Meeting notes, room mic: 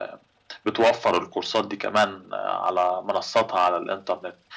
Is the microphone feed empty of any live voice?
Yes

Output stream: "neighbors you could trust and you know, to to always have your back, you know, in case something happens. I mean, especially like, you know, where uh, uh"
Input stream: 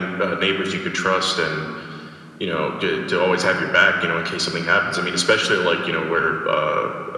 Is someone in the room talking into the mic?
No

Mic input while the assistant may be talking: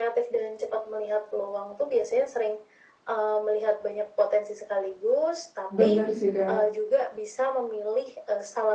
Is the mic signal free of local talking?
No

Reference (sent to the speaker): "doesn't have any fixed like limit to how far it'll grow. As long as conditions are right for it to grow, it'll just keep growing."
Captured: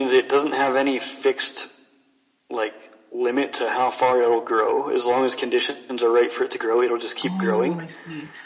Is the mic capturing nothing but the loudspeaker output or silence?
No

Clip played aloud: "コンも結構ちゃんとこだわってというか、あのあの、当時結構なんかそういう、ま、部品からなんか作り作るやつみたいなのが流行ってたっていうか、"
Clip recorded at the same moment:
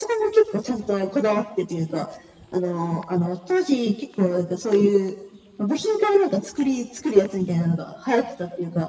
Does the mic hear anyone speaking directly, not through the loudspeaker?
No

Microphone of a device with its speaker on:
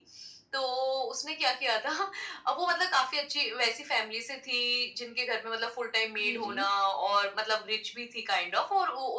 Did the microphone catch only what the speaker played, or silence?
No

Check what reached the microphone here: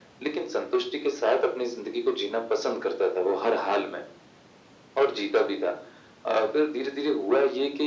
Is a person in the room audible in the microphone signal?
No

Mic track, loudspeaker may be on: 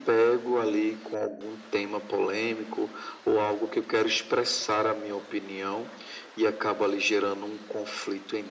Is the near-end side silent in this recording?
Yes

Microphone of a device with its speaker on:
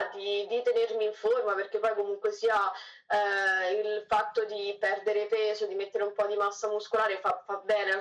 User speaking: No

